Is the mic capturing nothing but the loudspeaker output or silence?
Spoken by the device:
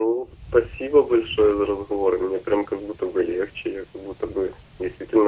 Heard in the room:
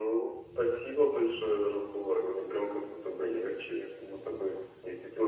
Yes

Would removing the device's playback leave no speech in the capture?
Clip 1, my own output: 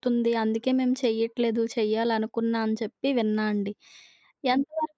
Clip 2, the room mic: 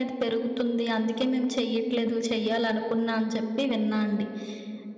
Yes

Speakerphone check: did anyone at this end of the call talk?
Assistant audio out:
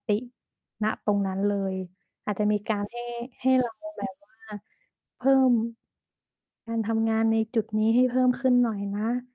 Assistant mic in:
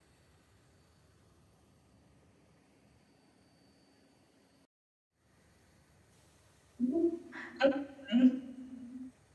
Yes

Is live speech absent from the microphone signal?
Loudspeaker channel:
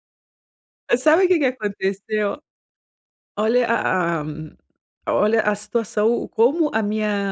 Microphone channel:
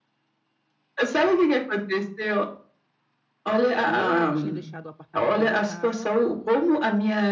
No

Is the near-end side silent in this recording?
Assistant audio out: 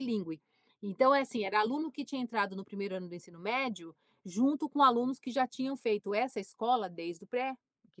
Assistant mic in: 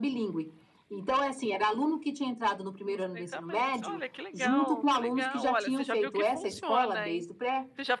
No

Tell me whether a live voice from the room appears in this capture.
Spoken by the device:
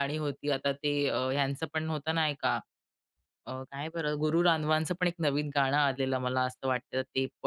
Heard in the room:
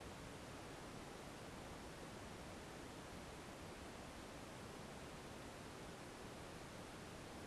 No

